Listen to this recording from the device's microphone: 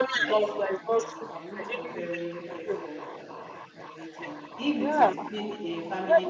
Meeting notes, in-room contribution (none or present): present